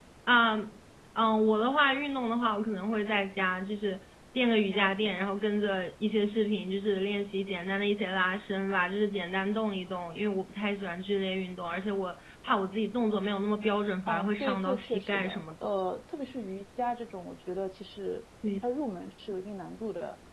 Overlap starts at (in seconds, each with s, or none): 14.1 s